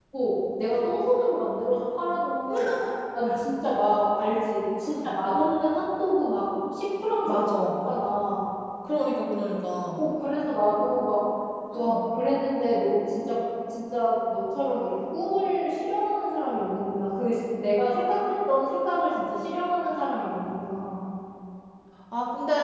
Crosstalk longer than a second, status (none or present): none